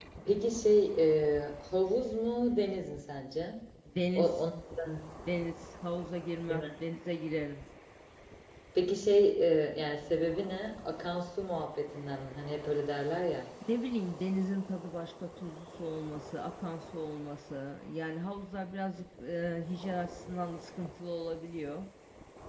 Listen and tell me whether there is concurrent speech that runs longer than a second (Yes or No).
No